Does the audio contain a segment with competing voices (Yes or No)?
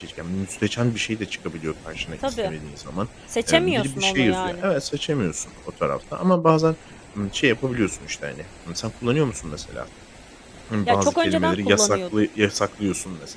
Yes